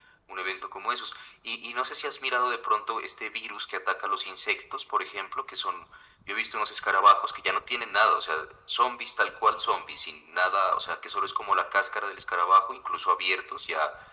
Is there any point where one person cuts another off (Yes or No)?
No